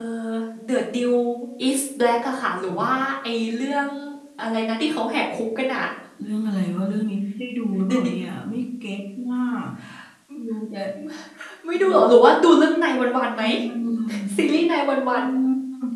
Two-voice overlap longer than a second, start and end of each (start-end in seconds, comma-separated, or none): none